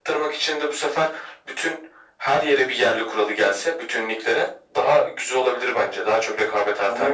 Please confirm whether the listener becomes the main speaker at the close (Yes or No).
Yes